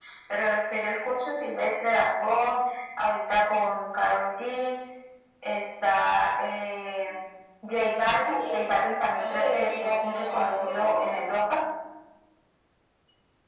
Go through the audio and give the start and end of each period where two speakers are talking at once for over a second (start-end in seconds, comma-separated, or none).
9.1-11.1